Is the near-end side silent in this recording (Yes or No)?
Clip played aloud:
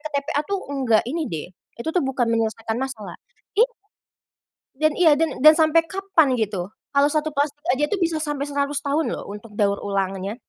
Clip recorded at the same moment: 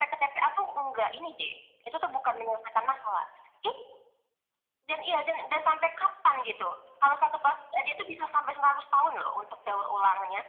Yes